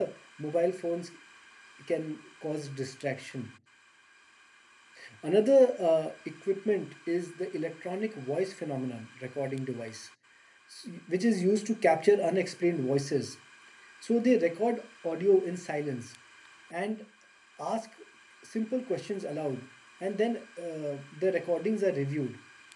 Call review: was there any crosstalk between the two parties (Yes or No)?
No